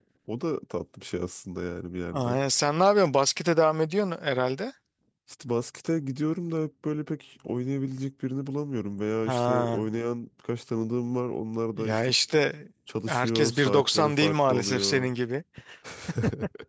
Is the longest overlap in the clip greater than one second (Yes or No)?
Yes